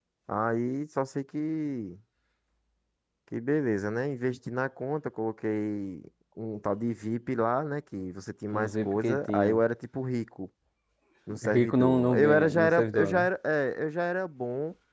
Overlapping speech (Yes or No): Yes